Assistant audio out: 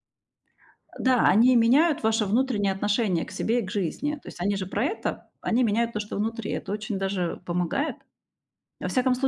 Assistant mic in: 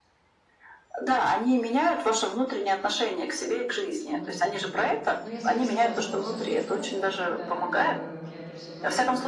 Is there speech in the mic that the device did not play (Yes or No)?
Yes